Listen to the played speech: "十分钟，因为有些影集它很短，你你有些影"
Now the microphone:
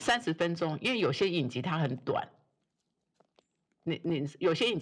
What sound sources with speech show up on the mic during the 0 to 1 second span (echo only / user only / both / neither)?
echo only